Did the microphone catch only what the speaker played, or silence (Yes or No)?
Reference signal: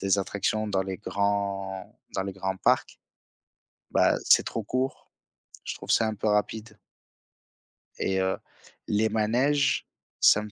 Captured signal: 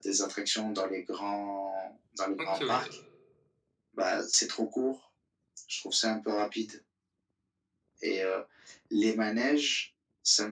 No